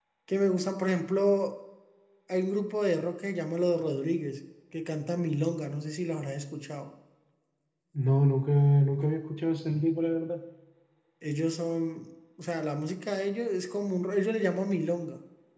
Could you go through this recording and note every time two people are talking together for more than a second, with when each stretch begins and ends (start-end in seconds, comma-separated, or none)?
none